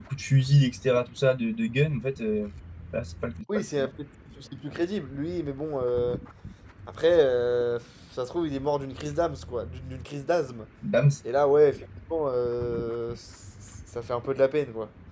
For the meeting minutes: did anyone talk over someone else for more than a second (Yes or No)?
No